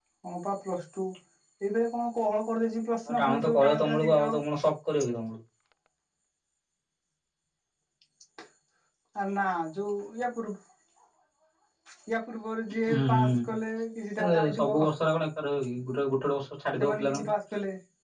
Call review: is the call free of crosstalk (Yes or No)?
No